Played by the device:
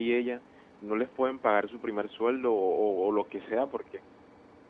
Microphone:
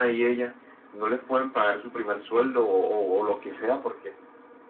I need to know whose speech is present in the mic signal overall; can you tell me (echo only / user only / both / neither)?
both